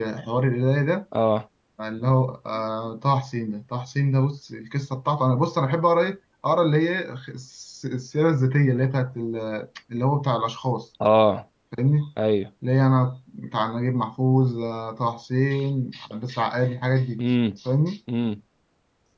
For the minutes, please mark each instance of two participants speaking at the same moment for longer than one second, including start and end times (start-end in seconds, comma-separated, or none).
none